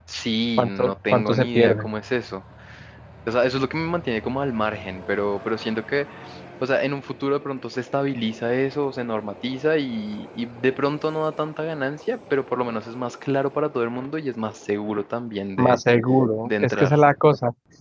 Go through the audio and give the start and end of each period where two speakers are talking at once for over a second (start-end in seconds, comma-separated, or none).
0.6-1.9